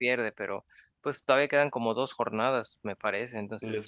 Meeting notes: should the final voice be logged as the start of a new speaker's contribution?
Yes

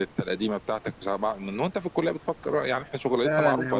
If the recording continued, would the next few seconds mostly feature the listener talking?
Yes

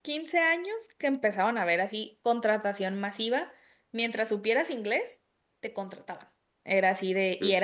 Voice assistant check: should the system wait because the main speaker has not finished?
Yes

